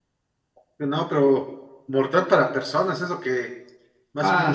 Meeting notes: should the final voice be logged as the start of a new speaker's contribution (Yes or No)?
Yes